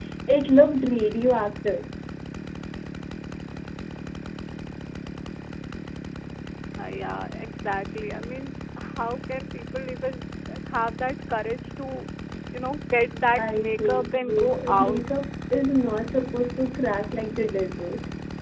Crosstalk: present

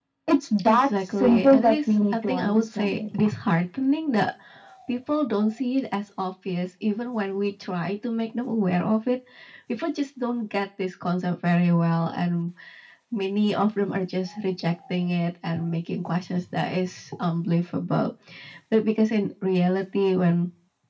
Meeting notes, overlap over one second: present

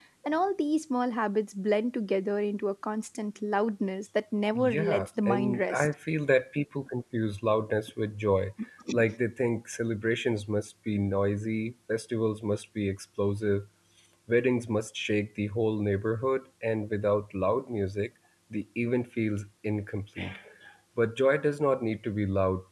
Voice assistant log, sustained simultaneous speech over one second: present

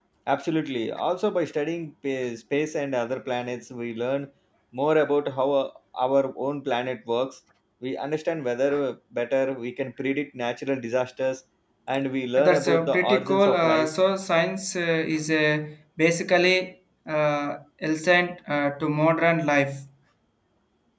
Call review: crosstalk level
present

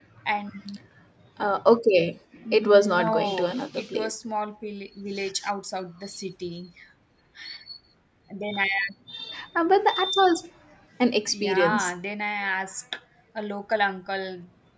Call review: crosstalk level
present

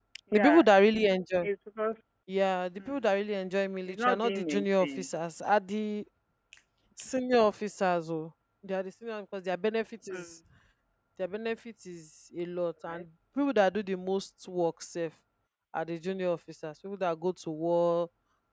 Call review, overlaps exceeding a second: present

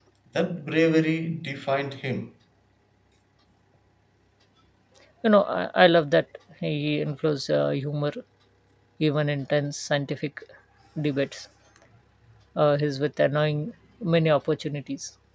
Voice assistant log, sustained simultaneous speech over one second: none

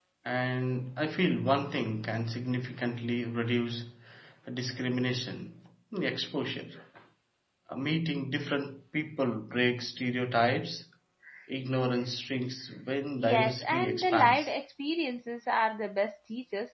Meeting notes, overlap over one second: present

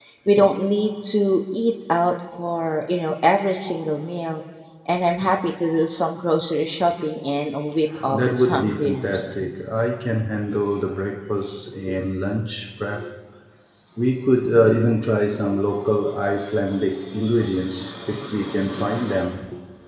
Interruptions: present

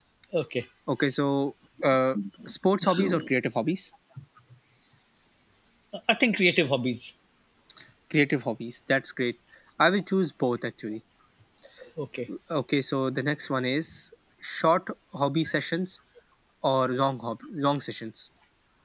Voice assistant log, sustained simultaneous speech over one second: none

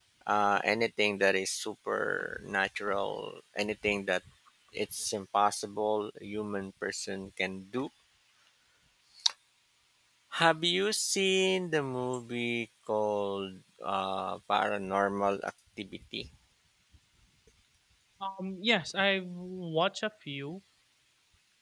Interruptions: none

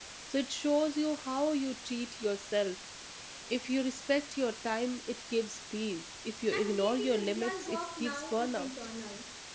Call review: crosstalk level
present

